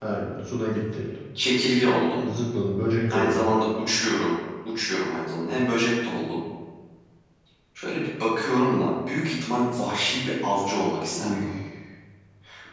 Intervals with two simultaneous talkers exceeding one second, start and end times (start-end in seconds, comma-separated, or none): none